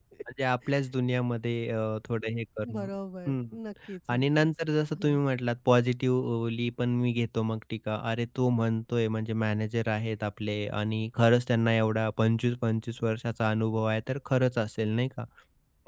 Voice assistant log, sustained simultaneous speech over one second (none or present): none